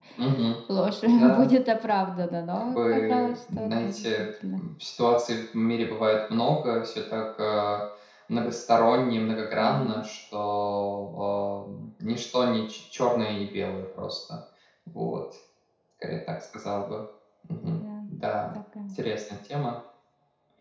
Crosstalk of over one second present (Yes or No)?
Yes